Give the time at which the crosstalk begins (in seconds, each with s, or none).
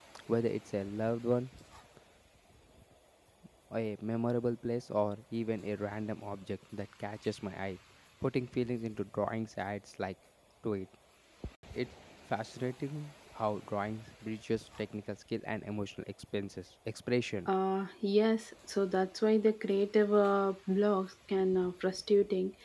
none